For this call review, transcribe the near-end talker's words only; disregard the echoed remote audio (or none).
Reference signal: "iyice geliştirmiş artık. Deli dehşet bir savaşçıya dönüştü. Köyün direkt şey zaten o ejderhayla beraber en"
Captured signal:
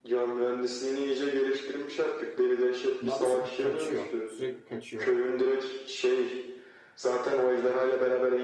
Daha doğrusu kaçıyor. Sürekli kaçıyor.